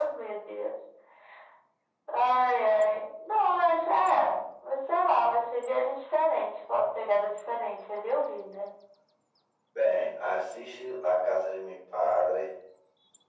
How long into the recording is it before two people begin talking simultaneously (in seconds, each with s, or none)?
none